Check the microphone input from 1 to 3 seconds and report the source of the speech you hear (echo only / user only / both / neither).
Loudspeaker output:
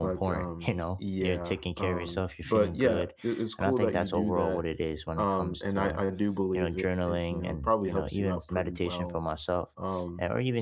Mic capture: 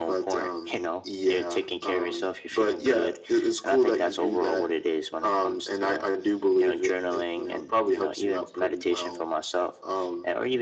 echo only